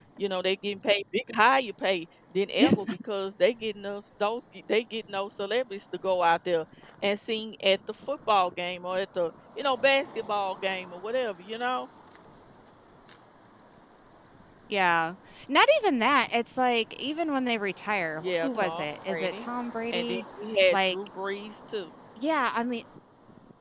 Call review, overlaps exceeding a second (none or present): present